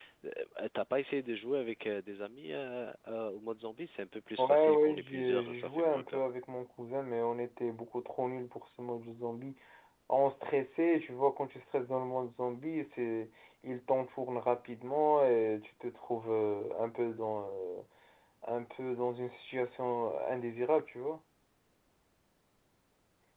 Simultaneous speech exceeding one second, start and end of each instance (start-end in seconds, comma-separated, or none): 4.4-6.2